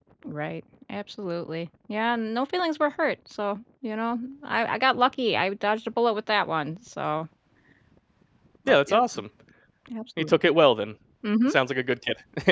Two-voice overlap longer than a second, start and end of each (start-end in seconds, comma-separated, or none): none